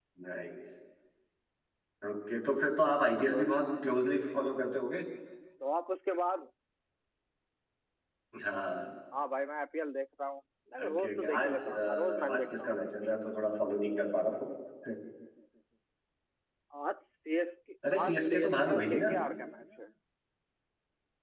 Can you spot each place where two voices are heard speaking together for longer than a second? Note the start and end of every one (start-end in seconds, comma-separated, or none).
10.8-12.8, 17.9-19.2